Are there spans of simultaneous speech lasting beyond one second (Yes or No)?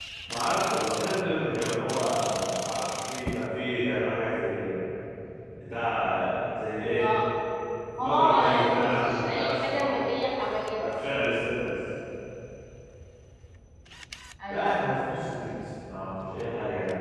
Yes